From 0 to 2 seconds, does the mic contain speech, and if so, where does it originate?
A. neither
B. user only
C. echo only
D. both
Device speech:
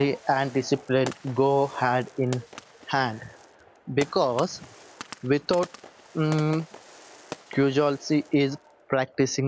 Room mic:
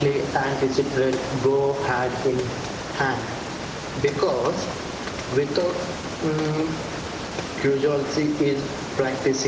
C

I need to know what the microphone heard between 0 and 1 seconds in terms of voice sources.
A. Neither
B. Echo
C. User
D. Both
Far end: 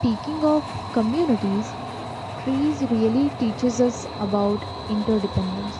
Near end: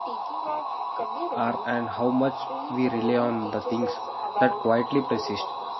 B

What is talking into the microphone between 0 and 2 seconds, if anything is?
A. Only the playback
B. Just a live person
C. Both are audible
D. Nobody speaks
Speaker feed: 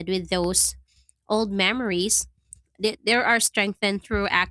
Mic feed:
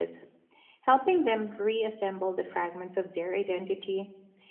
B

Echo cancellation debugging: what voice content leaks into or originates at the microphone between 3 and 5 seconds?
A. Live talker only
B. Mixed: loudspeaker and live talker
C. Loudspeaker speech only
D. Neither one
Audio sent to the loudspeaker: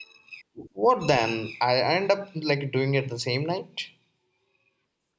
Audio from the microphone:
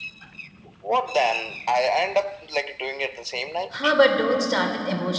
B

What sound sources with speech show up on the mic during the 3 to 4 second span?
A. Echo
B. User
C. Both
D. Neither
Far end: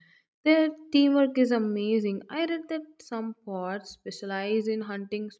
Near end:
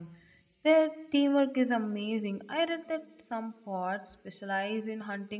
A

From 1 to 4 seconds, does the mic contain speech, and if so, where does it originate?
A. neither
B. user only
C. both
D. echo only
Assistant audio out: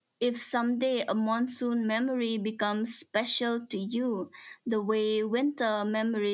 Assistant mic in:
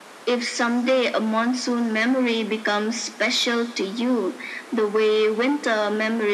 D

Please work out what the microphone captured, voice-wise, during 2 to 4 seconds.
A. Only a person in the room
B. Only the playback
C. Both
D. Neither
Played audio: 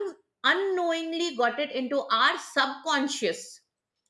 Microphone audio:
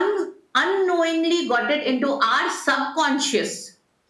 B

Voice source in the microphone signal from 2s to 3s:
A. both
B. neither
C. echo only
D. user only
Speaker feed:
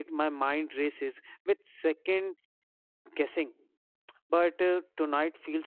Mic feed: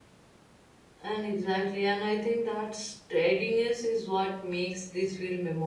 D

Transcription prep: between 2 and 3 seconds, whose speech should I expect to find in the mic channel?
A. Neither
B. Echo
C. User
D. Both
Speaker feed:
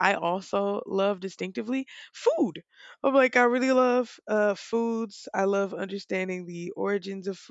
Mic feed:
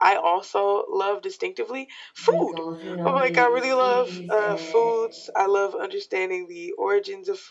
D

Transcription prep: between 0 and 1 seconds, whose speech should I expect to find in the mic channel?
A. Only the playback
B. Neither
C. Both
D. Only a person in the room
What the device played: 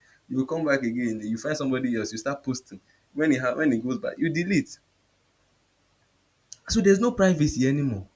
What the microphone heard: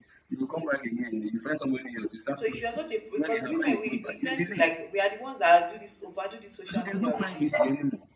A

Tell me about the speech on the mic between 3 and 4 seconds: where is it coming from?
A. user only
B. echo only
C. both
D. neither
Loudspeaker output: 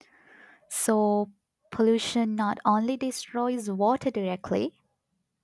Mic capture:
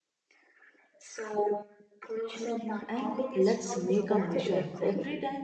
C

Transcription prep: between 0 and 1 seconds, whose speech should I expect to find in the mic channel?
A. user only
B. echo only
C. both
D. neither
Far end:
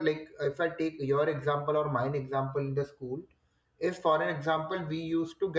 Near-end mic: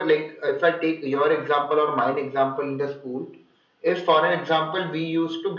B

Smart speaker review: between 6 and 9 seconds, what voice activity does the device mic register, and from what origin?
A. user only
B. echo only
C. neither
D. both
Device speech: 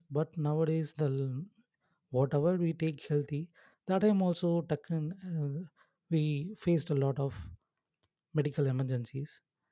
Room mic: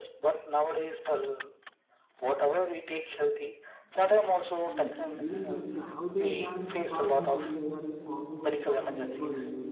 D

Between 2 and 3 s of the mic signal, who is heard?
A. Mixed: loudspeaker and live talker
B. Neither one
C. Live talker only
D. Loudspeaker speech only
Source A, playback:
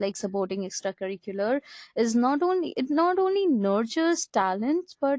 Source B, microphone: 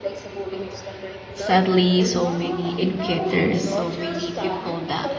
A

